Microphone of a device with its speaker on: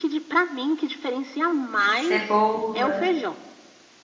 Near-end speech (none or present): present